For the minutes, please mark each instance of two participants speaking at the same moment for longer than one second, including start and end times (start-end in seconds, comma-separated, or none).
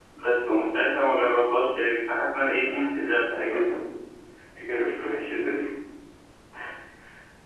2.4-3.6